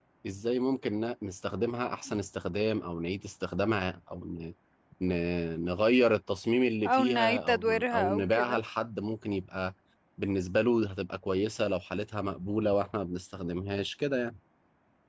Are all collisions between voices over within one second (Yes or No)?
No